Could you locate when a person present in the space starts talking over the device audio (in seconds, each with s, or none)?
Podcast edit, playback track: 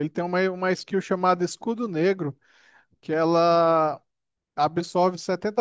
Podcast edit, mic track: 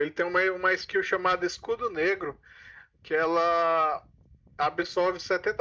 none